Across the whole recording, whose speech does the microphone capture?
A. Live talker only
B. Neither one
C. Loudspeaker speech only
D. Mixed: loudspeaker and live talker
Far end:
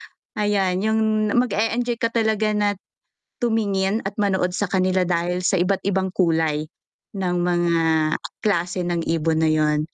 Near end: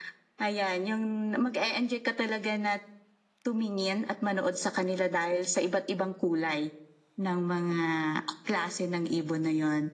C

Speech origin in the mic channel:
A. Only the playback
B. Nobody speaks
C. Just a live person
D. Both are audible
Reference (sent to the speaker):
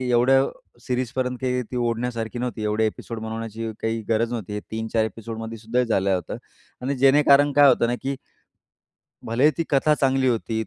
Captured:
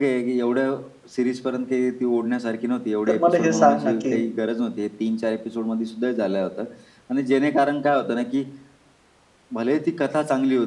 D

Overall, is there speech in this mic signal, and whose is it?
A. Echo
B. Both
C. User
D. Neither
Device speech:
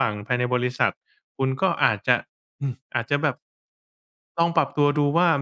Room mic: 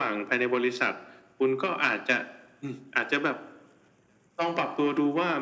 A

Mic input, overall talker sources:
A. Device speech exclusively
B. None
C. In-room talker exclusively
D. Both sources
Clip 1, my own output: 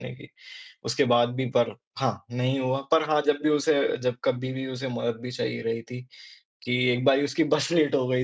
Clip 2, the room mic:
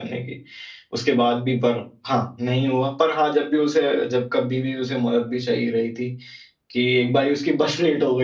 A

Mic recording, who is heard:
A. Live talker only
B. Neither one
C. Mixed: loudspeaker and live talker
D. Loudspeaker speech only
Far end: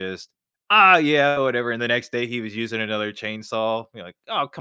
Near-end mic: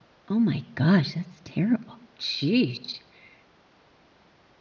A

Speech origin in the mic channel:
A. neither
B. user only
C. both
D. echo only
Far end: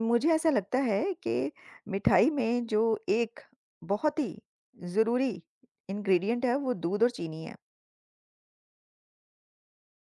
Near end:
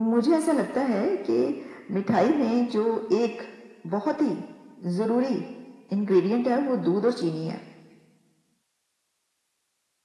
D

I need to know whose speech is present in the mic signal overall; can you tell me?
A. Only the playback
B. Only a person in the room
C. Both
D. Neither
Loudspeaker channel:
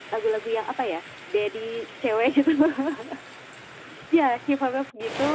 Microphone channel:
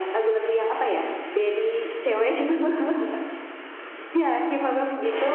A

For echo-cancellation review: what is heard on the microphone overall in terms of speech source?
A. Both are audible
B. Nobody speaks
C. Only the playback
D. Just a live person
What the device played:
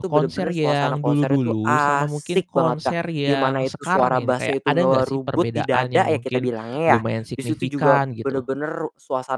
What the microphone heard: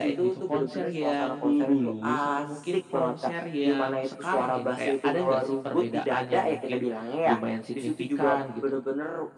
C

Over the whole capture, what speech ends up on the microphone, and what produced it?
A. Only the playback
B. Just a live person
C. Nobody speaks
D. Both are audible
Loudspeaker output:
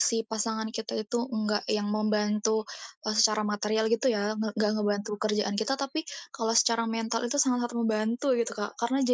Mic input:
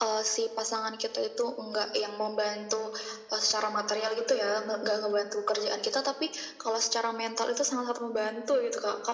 A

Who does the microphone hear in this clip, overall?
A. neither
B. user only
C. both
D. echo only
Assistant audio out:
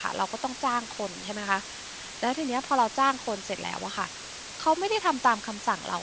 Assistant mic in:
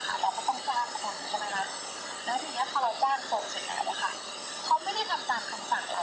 D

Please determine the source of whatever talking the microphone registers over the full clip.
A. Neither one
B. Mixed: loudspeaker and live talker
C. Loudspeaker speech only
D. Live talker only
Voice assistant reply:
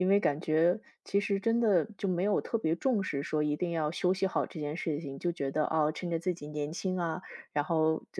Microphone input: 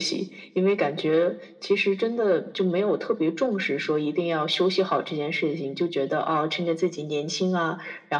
C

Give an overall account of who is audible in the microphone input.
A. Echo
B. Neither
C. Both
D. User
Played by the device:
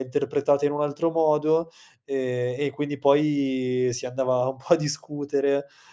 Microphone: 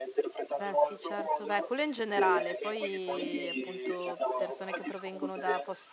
C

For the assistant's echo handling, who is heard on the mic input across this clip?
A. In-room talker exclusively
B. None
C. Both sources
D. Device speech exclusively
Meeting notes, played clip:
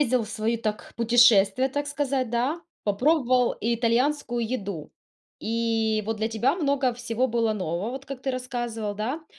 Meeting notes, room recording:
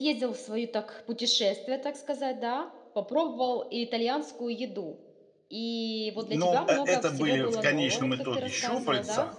C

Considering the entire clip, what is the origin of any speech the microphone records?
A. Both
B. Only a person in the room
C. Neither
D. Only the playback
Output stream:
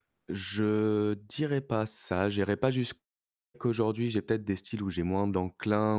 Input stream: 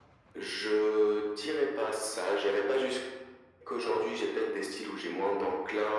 D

